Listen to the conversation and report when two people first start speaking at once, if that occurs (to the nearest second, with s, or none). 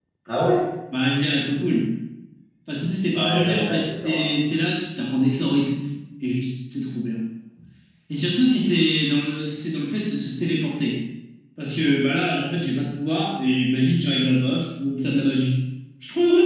3 s